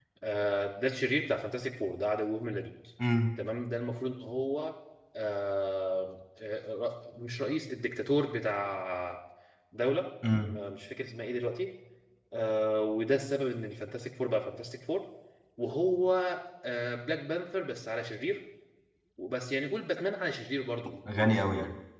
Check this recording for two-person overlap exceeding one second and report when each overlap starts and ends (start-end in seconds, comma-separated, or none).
none